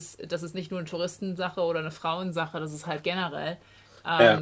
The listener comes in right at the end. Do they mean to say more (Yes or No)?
No